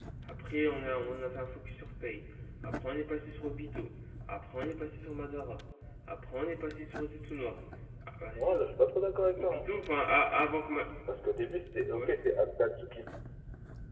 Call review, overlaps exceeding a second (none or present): none